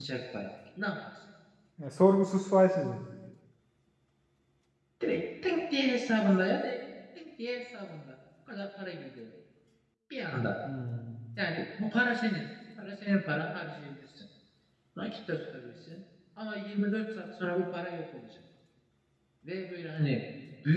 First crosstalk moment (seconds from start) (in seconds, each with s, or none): none